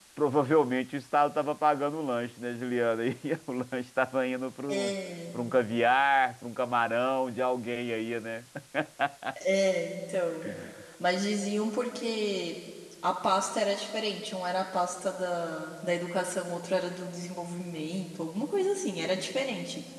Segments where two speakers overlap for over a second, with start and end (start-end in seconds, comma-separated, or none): none